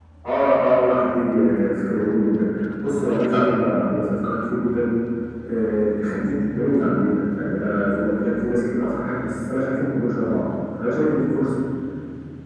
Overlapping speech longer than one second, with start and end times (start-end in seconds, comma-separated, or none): none